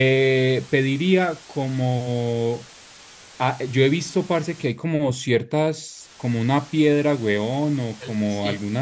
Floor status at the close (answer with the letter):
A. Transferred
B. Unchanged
B